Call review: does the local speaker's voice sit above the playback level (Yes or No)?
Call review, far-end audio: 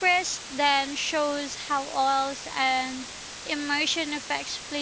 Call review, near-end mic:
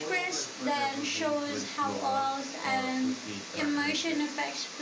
No